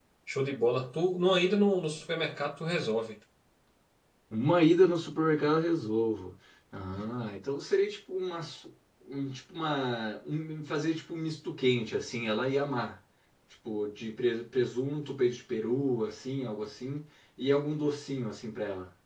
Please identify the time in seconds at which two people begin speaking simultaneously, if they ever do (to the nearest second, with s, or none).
none